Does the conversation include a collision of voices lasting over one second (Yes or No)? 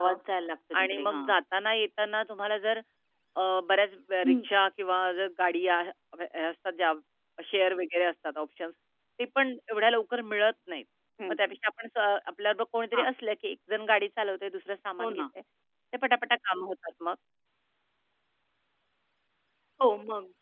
No